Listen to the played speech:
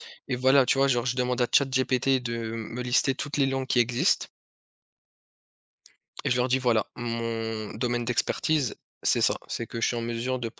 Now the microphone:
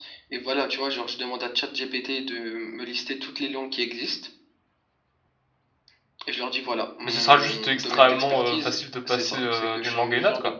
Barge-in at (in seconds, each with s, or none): 7.0 s